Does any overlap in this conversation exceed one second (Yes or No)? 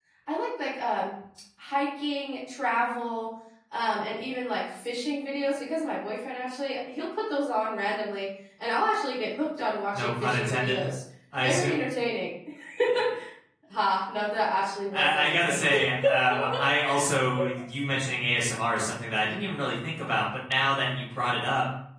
Yes